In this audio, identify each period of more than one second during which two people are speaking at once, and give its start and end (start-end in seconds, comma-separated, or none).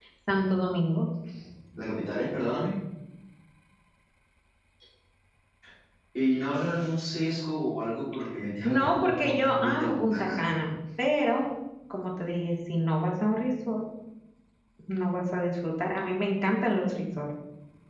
8.6-10.5